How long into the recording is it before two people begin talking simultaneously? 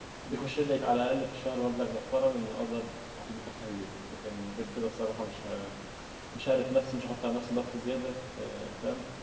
none

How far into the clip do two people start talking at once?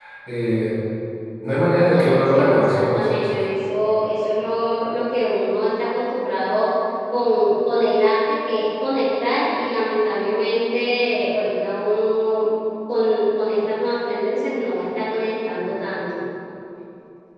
1.6 s

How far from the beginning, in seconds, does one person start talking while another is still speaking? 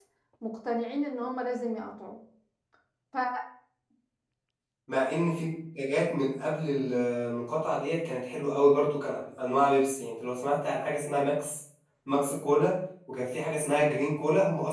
none

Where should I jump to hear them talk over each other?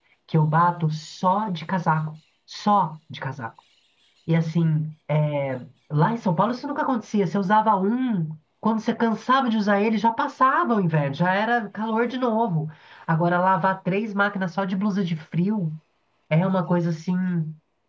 none

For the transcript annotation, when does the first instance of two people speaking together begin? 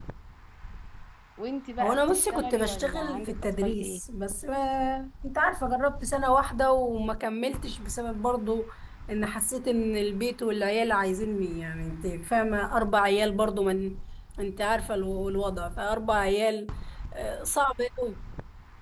1.8 s

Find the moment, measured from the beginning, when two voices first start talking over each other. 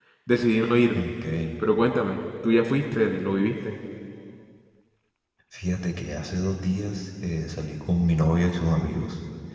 none

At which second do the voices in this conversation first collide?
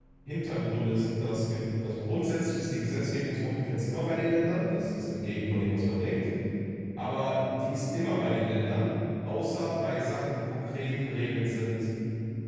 none

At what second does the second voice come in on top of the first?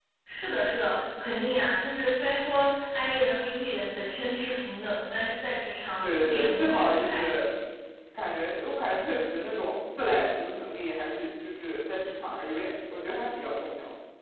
6.0 s

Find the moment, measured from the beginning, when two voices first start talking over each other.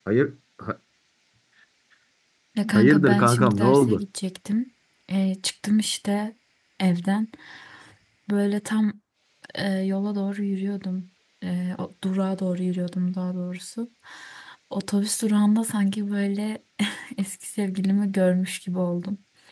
2.7 s

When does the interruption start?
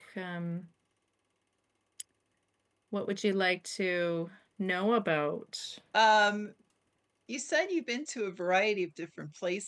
none

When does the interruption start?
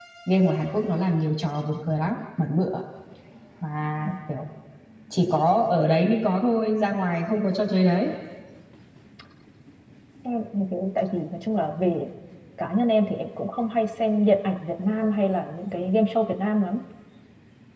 none

